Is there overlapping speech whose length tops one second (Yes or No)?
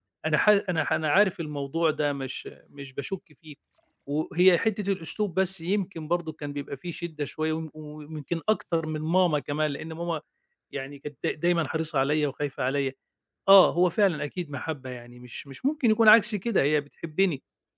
No